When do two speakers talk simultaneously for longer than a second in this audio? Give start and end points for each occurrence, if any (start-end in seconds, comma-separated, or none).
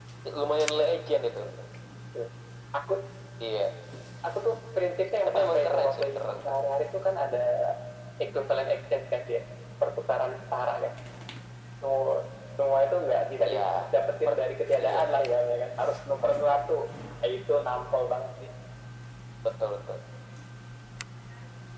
5.2-6.6